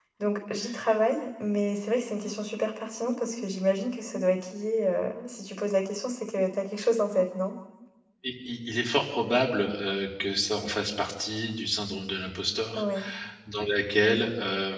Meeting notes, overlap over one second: none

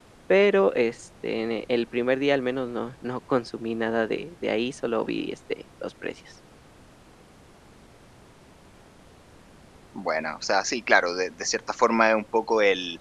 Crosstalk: none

